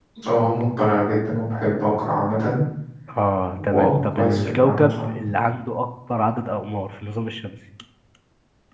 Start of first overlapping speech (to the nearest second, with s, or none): 4 s